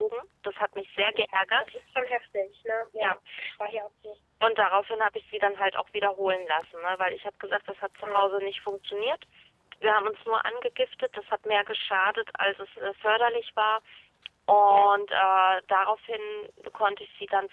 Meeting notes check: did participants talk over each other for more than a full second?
No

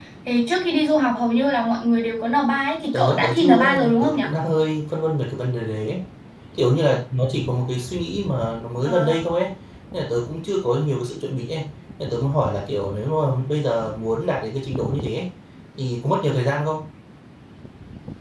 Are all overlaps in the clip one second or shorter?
No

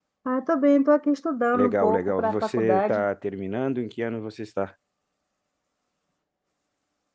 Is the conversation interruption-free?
No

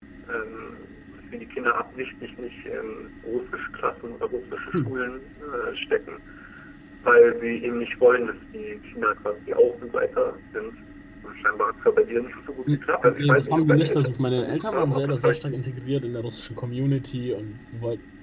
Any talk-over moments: Yes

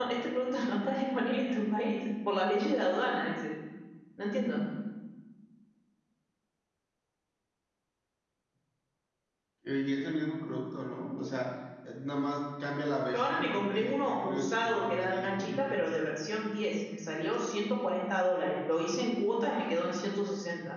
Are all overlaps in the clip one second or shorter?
No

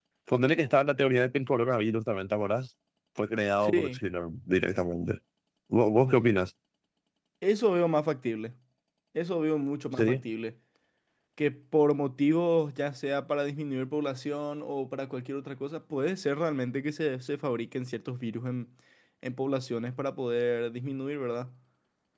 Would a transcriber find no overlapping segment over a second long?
Yes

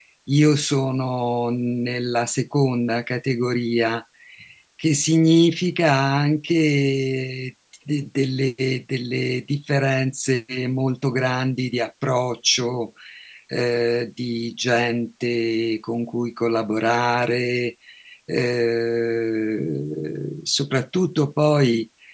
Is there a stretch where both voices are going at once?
No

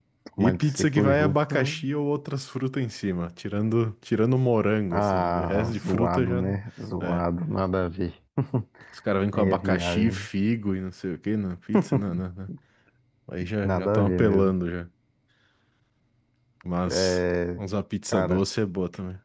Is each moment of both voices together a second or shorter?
No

